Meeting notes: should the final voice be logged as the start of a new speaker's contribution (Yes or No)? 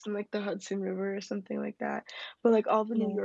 No